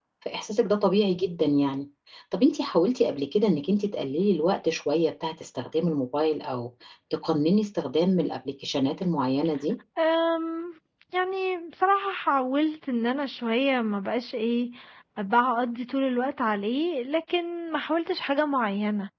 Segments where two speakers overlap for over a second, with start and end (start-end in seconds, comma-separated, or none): none